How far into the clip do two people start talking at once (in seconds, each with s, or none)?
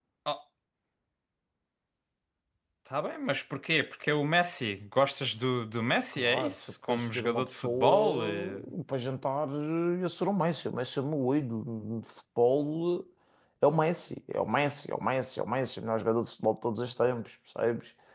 6.1 s